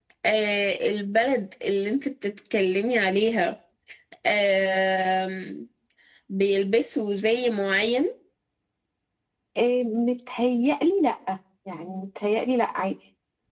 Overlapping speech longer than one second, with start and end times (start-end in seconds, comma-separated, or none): none